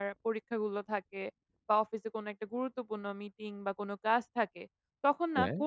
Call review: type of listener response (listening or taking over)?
listening